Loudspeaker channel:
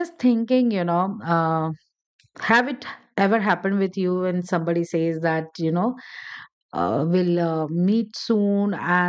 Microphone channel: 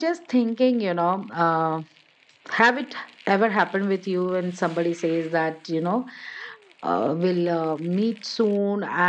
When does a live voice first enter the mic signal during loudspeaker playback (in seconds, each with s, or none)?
none